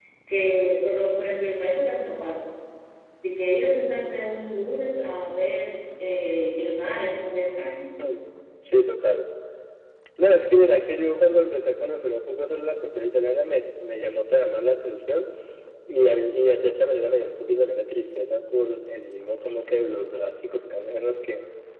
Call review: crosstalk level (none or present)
none